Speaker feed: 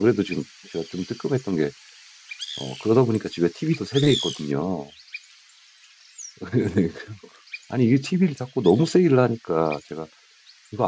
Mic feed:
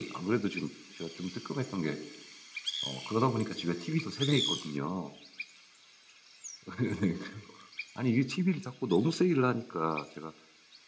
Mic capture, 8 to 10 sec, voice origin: echo only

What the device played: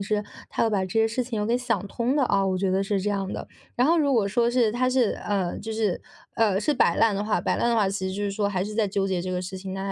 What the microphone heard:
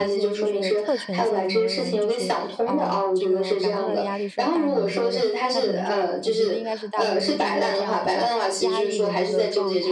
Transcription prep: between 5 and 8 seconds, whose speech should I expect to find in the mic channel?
both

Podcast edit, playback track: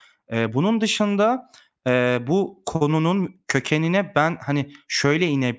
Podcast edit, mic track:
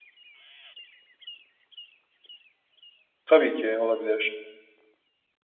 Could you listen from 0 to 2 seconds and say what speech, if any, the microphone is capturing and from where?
neither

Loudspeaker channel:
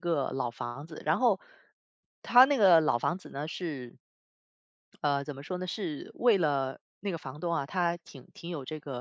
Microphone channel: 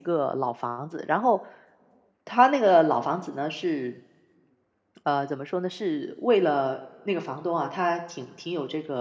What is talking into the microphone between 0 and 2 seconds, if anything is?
echo only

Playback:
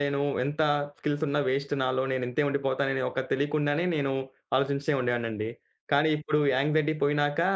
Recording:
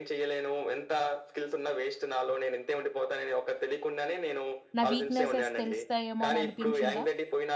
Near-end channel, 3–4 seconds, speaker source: echo only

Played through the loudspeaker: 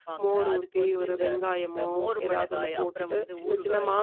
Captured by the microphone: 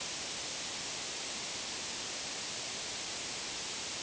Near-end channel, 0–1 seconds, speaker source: neither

